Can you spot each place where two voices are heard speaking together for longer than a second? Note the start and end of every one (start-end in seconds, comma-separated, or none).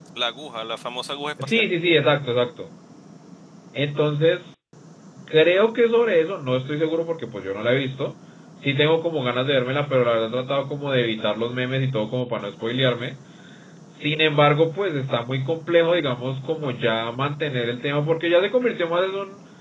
none